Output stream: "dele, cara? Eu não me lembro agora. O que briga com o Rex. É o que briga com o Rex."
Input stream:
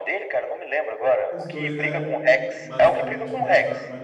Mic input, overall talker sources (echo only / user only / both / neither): both